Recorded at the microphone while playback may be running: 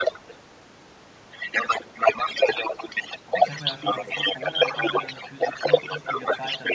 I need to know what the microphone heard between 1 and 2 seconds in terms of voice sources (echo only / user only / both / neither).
echo only